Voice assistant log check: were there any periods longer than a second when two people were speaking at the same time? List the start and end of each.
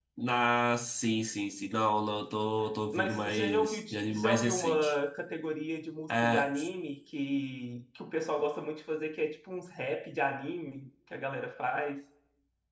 2.9-4.9

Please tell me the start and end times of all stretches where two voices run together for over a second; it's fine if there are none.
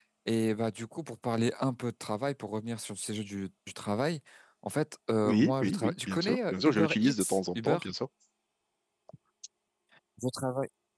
5.2-7.8

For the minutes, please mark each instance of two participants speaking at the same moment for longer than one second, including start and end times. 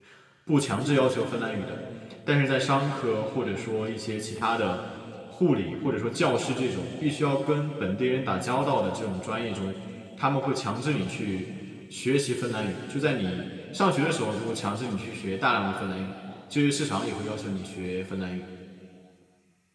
none

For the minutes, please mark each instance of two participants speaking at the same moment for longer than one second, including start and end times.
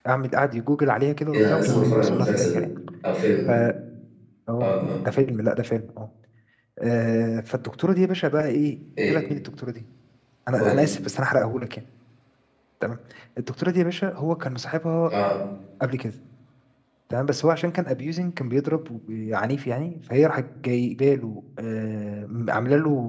1.3-2.6

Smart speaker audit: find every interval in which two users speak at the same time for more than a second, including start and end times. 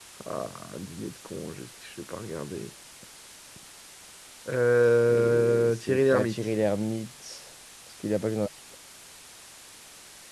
5.1-6.3

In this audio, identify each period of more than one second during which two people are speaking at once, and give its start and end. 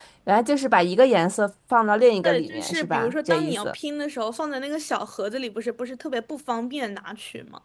2.2-3.7

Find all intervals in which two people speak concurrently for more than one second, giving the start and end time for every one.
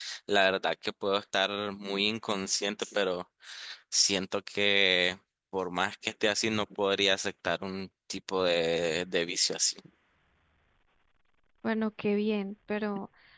none

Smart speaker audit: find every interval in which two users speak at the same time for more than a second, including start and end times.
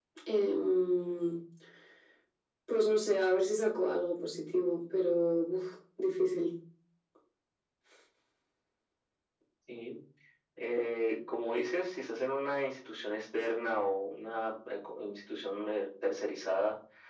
none

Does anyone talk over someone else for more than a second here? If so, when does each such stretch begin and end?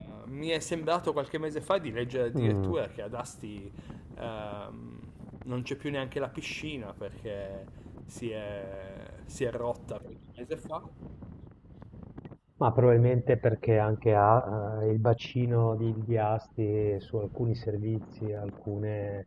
none

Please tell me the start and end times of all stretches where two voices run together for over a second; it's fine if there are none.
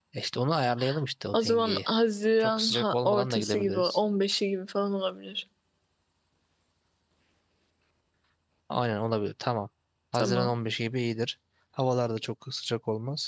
2.4-4.0

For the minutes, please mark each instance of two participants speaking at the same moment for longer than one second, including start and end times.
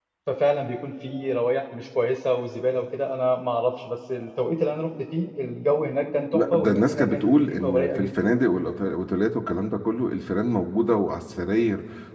6.3-8.3

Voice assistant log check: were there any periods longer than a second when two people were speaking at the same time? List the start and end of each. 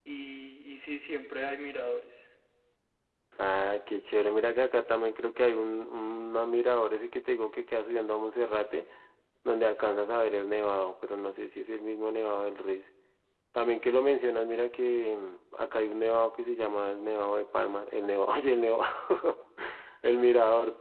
none

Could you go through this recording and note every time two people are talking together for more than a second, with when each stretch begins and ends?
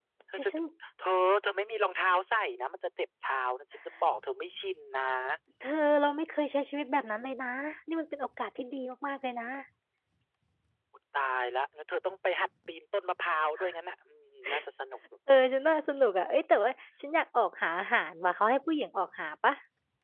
none

